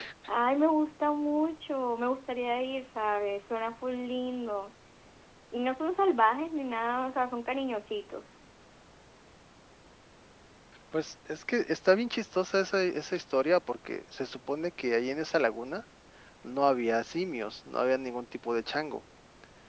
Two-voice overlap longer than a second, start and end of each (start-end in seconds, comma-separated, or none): none